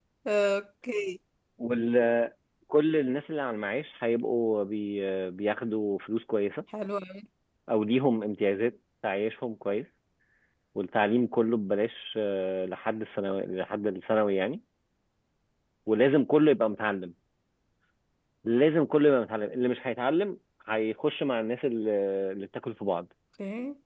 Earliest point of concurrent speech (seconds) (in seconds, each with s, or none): none